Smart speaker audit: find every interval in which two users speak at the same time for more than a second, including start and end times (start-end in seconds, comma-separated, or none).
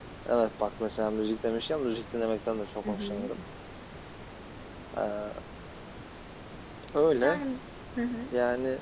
none